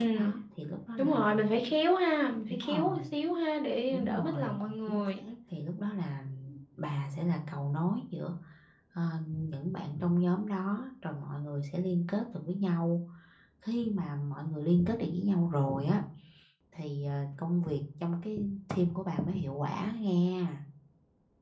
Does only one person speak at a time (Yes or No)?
No